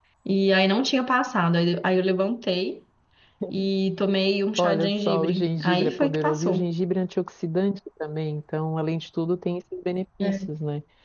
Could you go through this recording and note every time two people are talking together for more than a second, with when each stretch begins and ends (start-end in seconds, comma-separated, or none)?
4.6-6.7